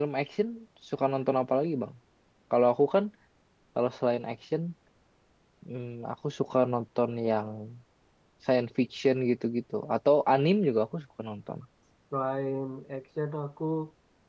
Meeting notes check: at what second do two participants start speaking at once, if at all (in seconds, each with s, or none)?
none